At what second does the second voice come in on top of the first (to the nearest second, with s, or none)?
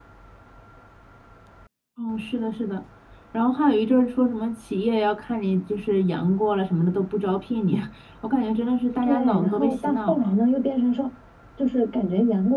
9 s